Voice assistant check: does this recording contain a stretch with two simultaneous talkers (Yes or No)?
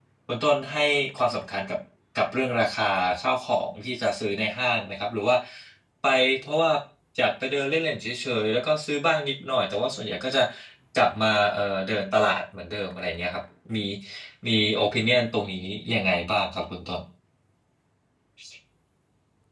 No